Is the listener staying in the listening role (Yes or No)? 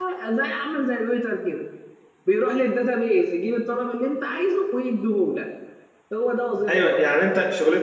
No